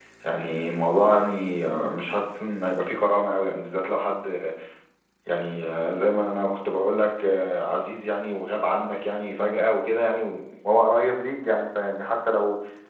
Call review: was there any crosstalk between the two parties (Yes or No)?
No